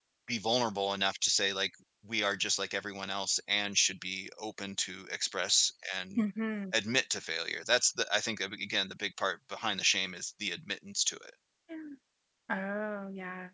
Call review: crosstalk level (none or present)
none